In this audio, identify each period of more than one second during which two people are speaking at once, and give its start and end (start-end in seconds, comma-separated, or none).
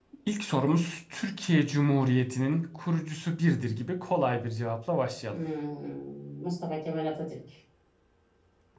none